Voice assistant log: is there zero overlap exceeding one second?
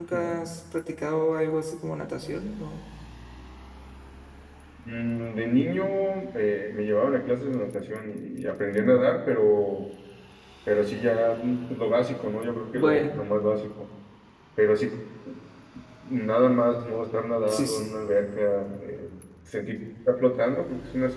Yes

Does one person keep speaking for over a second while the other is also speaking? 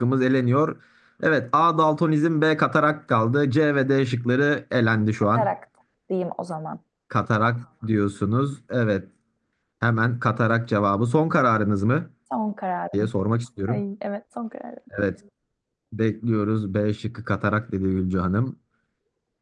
No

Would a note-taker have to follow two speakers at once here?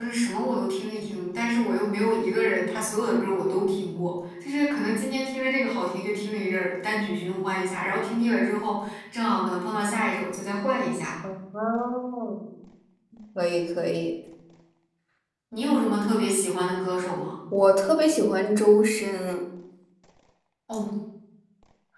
No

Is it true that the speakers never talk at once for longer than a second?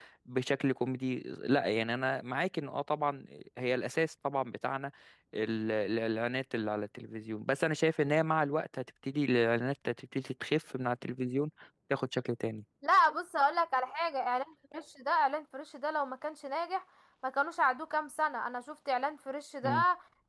Yes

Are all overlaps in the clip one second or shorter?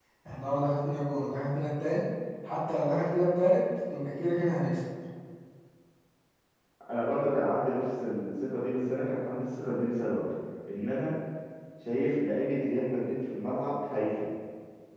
Yes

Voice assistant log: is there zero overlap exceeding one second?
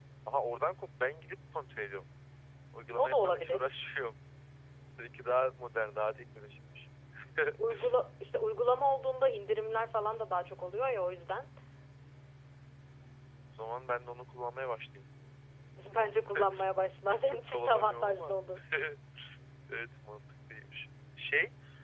No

